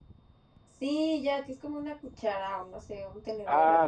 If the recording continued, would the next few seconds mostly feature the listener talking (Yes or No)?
Yes